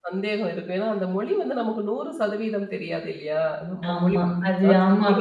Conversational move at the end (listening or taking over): taking over